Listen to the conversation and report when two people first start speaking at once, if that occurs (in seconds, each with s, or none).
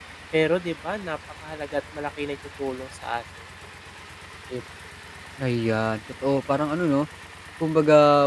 none